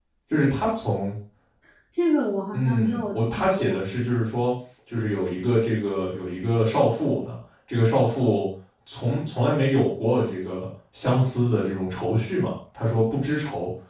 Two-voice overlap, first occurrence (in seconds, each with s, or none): 2.5 s